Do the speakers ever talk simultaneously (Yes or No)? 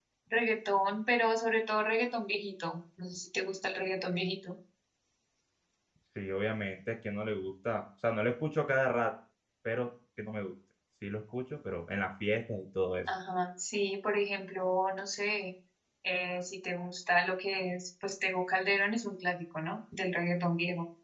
No